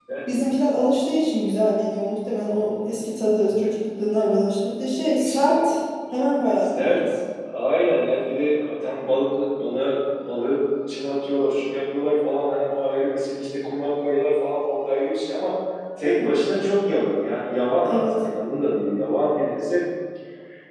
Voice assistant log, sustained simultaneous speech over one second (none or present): none